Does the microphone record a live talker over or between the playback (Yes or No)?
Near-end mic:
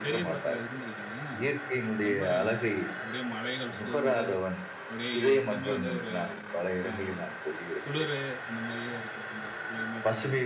Yes